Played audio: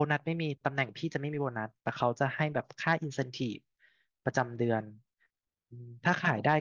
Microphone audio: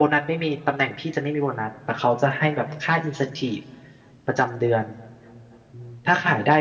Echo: present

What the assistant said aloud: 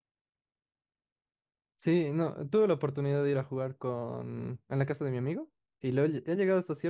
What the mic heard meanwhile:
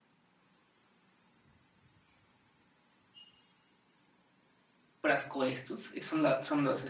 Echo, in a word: none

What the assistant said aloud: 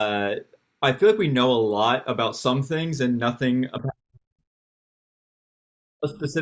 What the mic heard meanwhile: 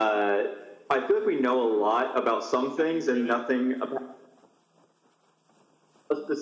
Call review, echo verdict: present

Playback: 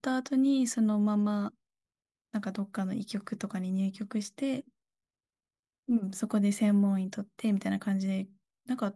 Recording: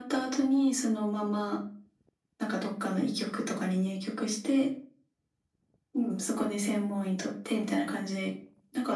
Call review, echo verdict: present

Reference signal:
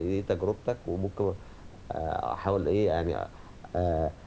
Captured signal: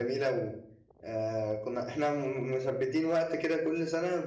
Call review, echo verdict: none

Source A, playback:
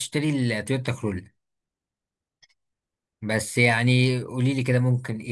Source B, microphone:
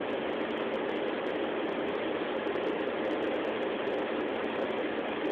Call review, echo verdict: none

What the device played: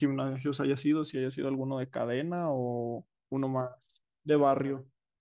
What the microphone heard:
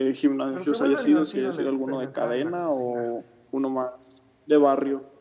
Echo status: present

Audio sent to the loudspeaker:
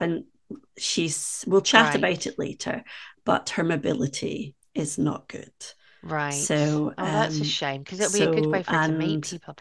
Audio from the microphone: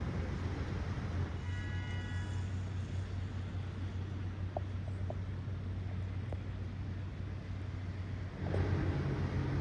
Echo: none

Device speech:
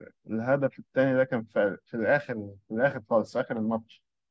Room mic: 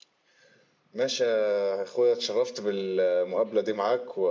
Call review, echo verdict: none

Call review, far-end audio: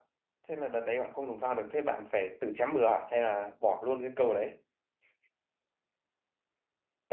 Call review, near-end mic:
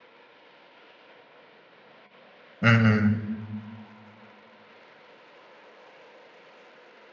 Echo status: none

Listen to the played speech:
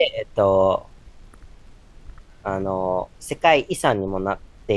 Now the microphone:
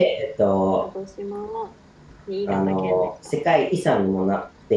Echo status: present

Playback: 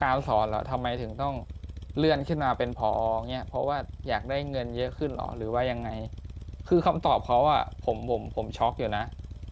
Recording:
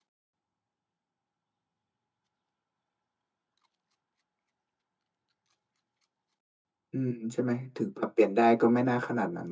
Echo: none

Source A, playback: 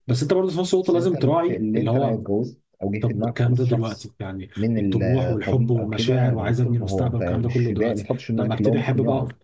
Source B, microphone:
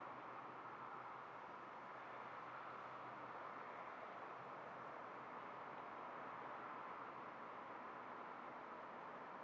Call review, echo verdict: none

